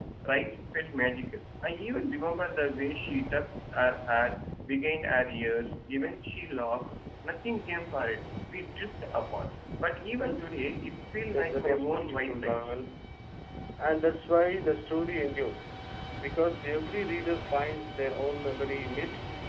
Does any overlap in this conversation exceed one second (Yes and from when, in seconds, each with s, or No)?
Yes, from 11.3 s